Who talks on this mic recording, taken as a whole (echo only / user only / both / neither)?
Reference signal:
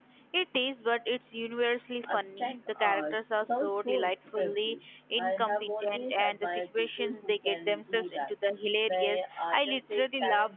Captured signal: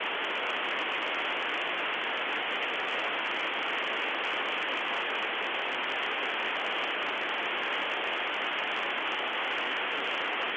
neither